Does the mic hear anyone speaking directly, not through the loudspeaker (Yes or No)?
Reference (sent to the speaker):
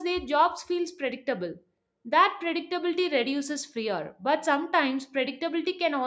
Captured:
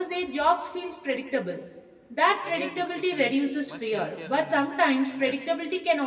Yes